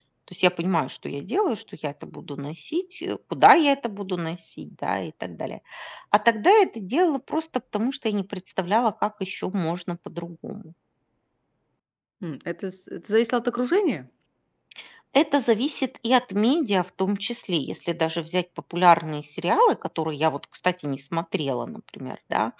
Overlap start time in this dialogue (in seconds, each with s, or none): none